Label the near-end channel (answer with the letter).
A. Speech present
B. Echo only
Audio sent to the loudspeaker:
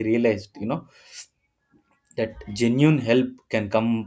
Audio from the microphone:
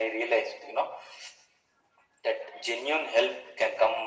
B